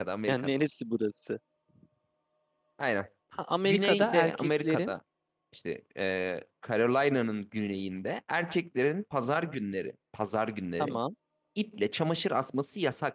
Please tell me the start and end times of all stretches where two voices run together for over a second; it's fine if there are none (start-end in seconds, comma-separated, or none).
3.6-4.9